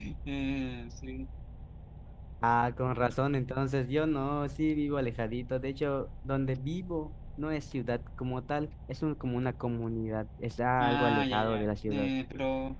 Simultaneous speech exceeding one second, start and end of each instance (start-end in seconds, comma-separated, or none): 10.8-12.1